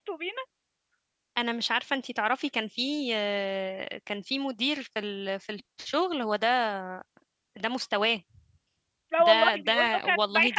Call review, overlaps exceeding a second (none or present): present